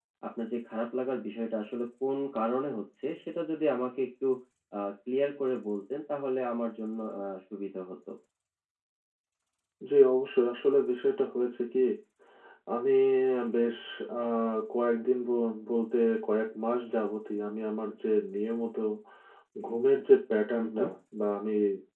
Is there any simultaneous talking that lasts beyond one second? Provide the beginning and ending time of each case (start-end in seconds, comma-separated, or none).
none